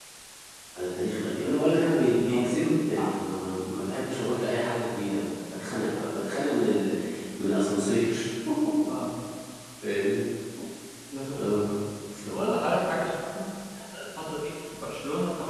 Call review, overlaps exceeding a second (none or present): none